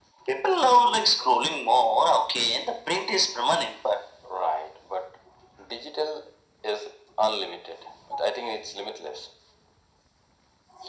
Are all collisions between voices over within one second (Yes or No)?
Yes